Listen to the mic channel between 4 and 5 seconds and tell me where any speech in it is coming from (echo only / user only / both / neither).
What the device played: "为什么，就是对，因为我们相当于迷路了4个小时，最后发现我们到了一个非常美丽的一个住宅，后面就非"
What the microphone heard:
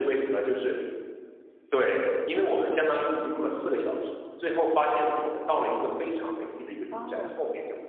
echo only